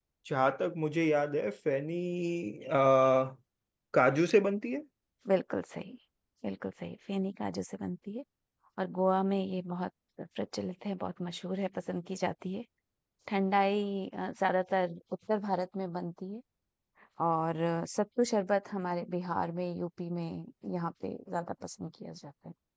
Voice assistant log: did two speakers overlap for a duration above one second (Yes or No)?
No